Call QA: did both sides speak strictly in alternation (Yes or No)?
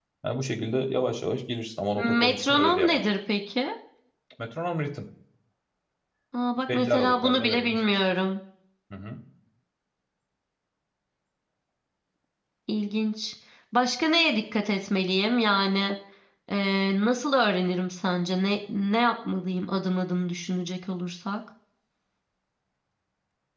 No